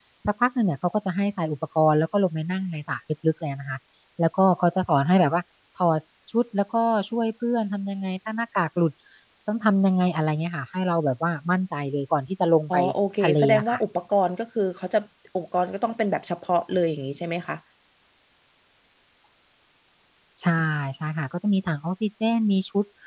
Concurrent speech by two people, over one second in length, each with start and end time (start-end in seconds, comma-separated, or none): none